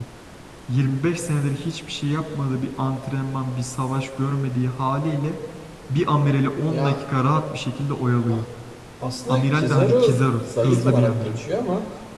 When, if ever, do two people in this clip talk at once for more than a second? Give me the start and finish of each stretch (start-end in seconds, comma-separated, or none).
9.3-11.4